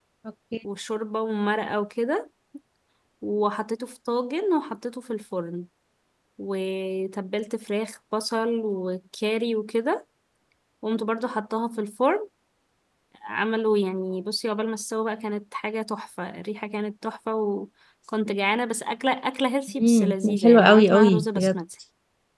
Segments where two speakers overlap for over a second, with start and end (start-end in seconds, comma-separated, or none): 19.8-21.6